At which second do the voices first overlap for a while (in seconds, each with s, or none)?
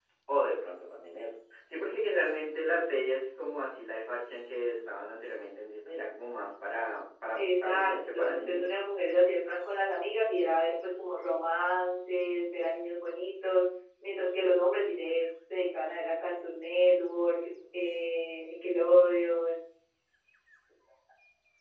7.4 s